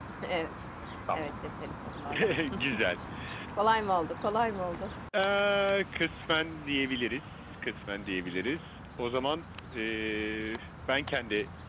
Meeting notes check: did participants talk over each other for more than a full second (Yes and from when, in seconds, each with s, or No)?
No